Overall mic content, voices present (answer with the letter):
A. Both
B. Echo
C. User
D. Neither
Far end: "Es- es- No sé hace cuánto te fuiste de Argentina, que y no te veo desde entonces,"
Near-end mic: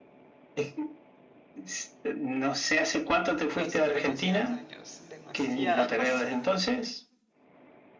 A